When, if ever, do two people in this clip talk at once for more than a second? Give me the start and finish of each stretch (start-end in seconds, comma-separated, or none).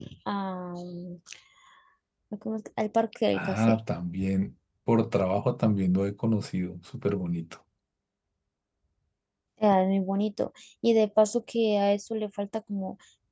none